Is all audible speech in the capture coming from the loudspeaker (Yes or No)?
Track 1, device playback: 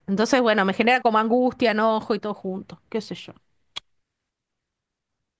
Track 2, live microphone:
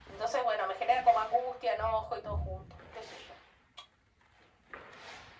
Yes